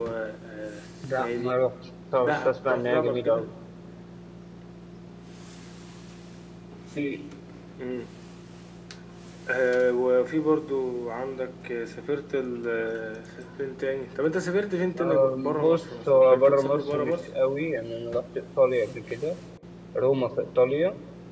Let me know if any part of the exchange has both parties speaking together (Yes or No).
Yes